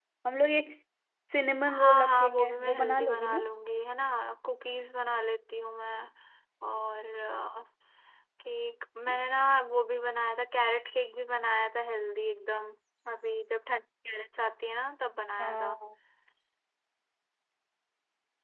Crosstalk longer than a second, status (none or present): present